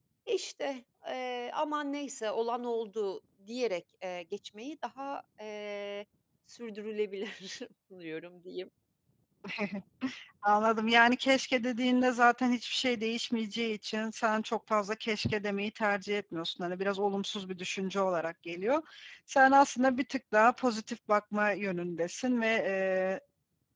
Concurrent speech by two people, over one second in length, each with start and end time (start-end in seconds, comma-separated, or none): none